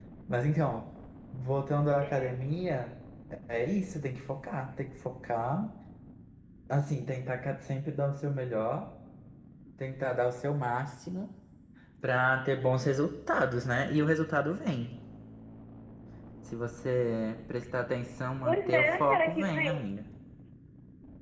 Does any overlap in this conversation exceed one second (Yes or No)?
Yes